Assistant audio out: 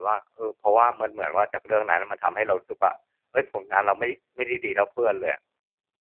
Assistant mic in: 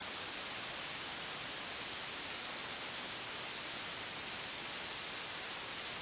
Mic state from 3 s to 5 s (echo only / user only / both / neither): neither